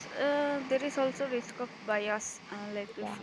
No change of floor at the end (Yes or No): Yes